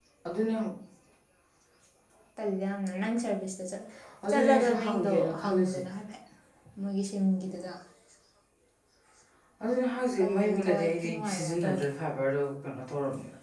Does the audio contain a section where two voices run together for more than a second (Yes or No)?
Yes